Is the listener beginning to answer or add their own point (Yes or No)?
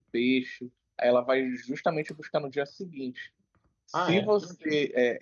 No